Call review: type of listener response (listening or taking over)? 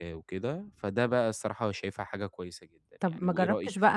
taking over